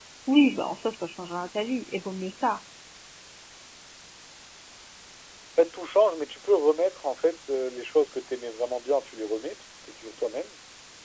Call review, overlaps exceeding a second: none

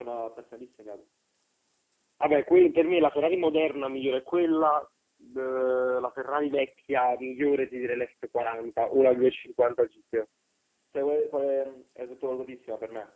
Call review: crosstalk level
none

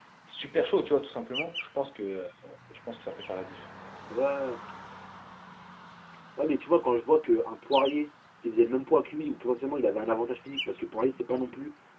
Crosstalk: none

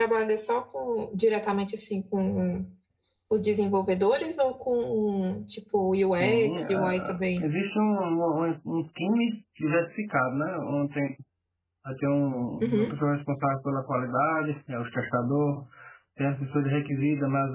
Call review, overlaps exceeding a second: present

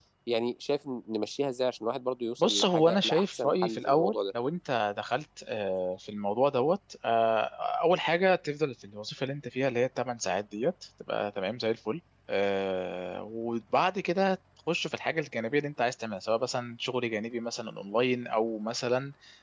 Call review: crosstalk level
present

